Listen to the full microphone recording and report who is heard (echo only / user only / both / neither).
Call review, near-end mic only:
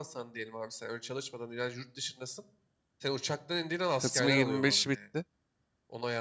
both